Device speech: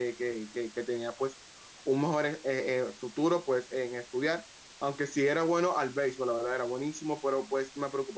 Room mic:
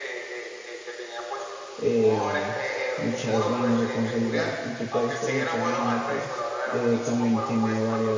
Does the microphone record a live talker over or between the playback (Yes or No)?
Yes